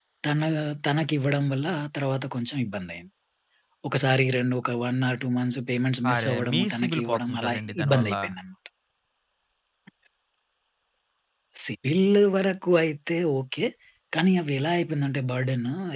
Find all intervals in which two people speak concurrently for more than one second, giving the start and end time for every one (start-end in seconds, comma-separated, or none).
6.1-8.1